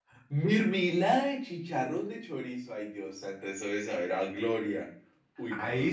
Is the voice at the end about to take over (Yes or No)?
Yes